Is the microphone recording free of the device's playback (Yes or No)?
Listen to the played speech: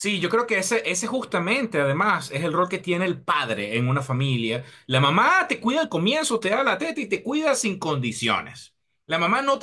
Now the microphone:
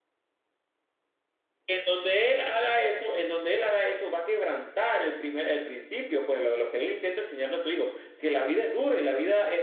Yes